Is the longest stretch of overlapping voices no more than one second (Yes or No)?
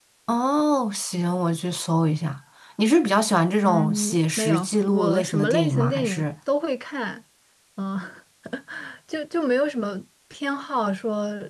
No